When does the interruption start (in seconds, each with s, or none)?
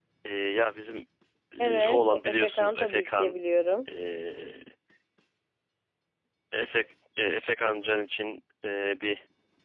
1.6 s